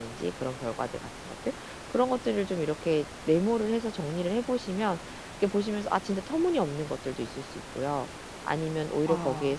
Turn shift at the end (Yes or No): No